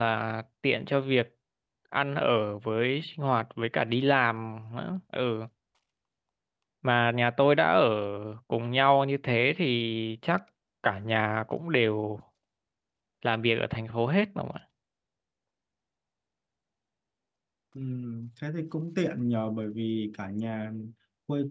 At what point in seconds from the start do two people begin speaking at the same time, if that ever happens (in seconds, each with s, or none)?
none